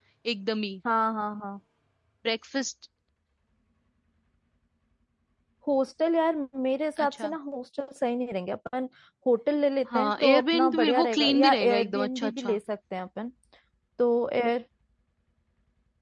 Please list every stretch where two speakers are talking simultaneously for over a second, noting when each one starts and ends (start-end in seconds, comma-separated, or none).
9.9-12.6